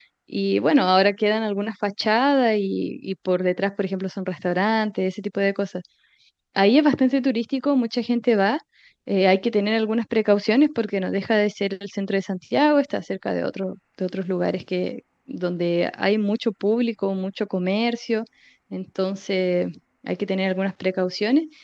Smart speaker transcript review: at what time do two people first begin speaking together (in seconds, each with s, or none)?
none